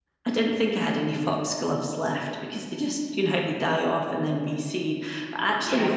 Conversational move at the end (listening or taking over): listening